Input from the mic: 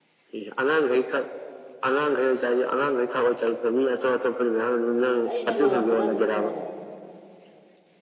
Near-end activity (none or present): present